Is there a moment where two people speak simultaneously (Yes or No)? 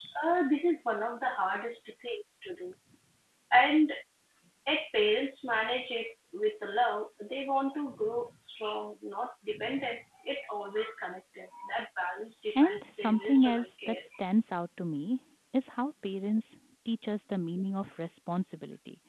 Yes